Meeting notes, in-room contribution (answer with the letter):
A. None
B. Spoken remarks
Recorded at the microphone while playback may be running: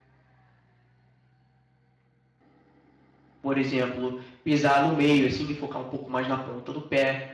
B